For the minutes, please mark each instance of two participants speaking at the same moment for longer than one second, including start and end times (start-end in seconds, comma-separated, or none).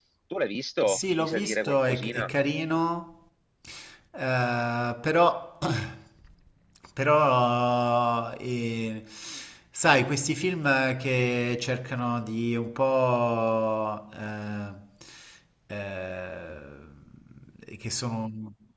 0.9-2.3